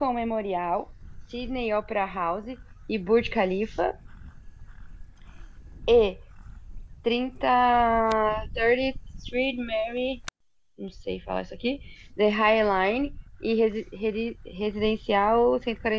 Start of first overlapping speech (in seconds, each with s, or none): none